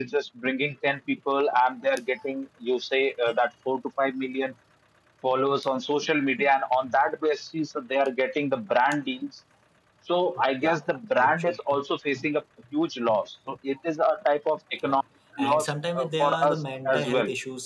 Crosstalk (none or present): present